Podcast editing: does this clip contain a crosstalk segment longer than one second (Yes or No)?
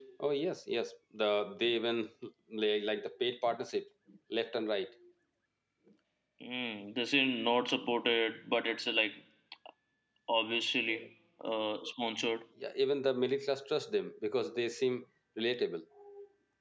No